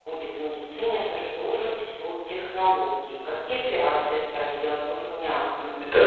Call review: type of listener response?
taking over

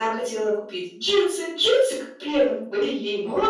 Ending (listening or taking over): listening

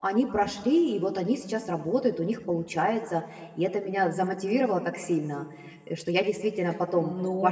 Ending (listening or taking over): taking over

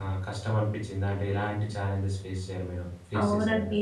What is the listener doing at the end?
taking over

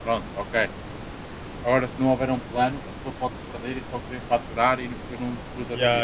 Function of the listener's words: taking over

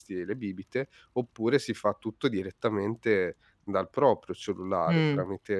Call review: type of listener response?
listening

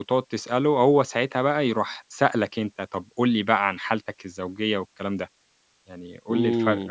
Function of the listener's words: taking over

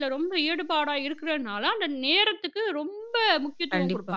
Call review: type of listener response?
taking over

